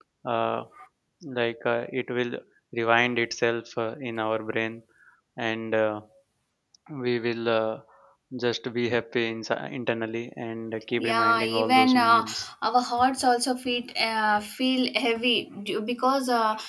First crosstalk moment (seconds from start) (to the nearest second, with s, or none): 11 s